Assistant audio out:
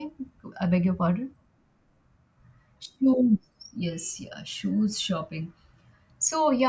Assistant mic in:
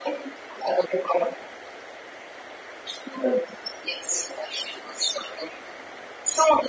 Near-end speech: none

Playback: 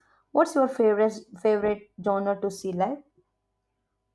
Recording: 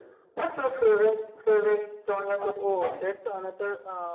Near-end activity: present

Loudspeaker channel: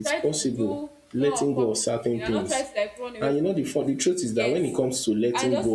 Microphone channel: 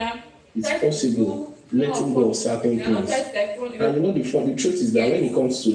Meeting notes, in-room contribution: none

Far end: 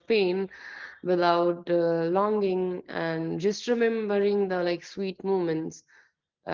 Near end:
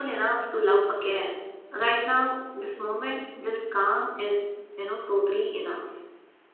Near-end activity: present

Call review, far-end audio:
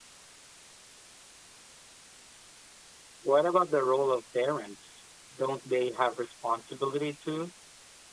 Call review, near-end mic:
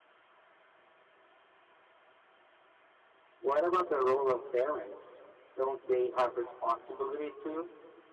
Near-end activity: none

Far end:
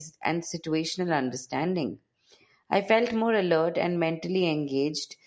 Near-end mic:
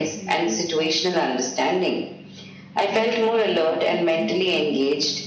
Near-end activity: present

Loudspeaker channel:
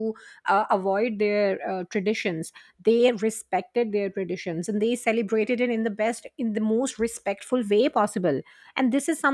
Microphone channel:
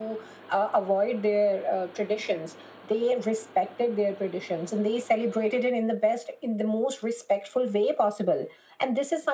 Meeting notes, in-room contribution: none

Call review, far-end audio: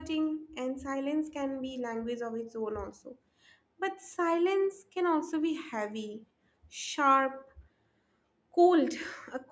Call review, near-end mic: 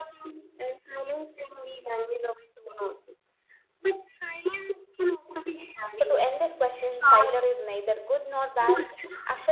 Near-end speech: present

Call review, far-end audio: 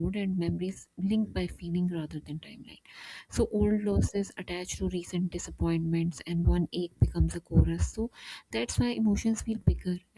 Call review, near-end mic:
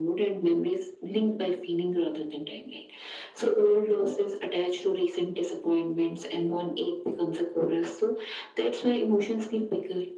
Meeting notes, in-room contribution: none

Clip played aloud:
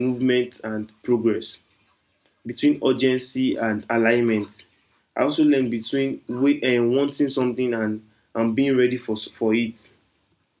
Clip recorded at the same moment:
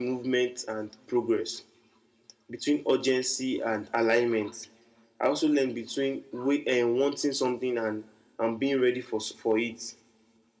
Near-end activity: none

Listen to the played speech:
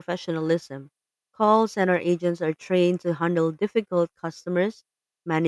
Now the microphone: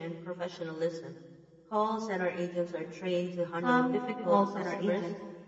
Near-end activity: present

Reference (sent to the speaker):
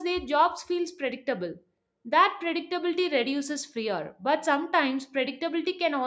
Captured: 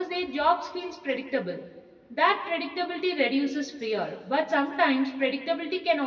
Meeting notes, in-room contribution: none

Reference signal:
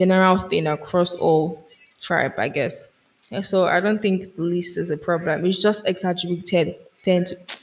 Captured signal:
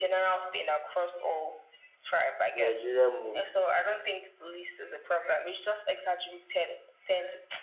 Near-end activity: present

